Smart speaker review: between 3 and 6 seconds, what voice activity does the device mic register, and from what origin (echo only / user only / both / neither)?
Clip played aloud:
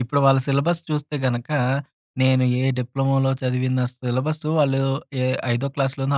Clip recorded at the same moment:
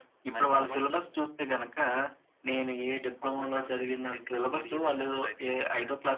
both